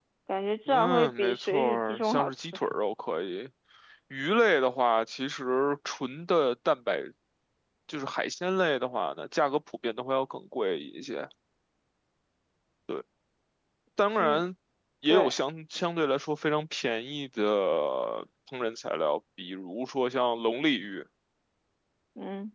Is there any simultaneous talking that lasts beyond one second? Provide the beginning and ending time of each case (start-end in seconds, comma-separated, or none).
0.7-2.6